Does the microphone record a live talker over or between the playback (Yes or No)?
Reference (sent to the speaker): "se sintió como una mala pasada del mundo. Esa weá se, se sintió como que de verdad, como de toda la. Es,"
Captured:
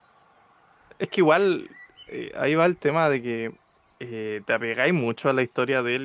Yes